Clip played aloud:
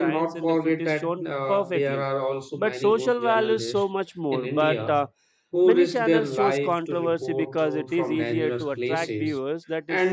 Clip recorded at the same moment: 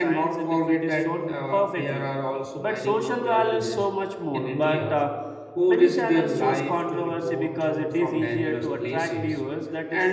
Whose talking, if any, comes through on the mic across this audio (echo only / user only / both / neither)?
echo only